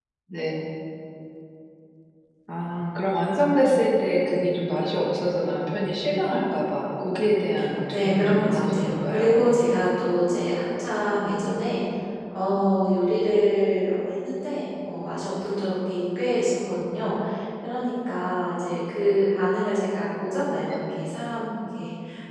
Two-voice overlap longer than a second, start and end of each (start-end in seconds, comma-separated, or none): 7.9-9.3